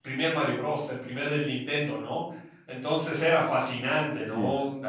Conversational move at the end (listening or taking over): listening